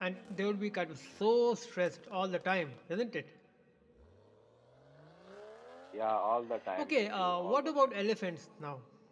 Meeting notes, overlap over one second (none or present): present